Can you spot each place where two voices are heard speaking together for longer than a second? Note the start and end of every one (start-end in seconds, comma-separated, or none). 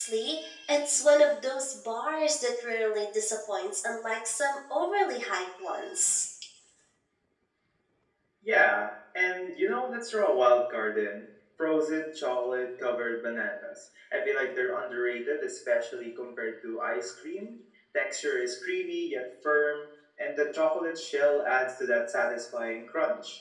none